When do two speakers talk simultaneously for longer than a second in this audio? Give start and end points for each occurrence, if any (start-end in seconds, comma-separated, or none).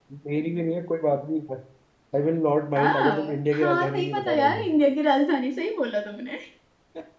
2.8-4.7